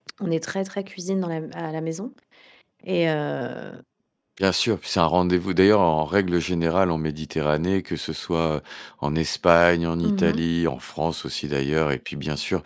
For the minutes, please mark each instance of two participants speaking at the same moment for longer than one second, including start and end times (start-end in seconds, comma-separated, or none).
none